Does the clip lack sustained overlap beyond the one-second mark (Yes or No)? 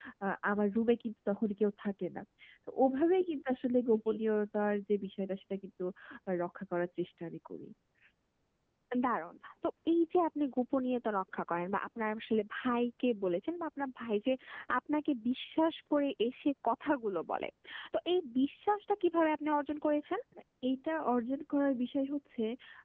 Yes